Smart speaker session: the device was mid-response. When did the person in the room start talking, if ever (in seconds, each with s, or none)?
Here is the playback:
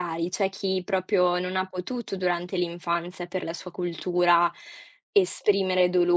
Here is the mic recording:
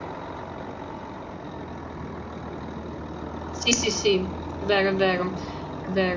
3.5 s